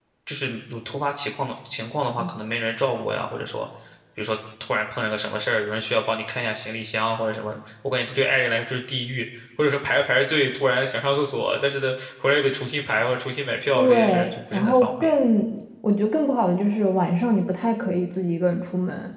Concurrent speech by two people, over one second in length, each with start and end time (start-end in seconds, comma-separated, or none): 13.7-15.1